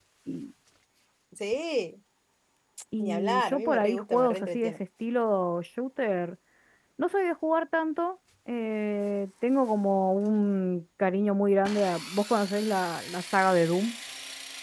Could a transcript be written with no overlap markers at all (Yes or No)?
No